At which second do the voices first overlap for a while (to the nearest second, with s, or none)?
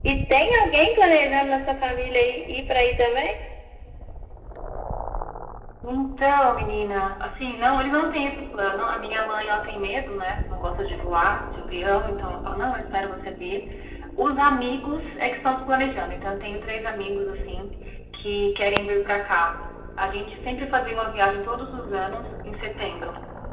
none